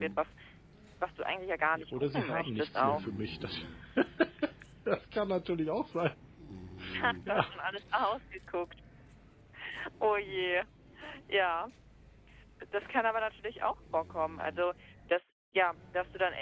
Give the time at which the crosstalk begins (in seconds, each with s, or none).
1.7 s